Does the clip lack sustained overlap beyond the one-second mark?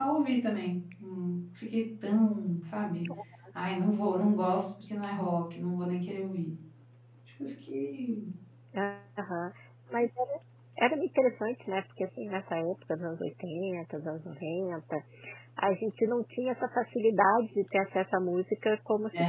Yes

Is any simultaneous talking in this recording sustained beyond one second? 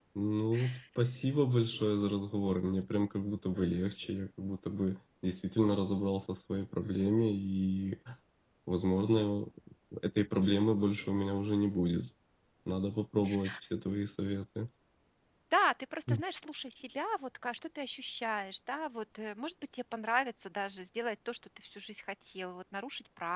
No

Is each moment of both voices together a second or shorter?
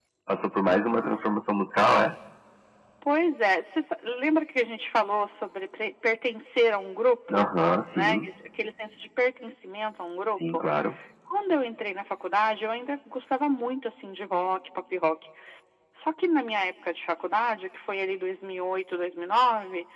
Yes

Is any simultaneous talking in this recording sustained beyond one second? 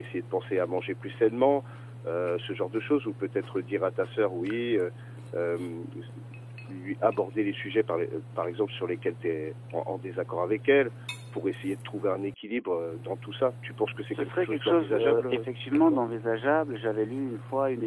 Yes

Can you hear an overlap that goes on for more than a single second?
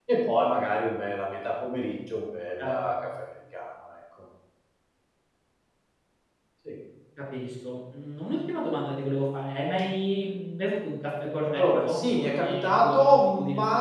Yes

